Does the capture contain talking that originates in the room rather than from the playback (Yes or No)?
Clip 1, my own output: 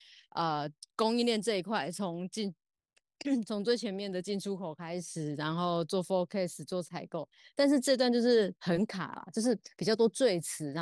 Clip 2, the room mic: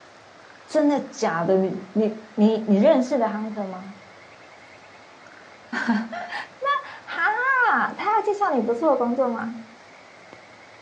Yes